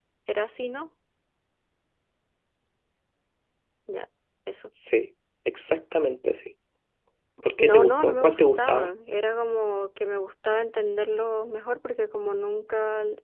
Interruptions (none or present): present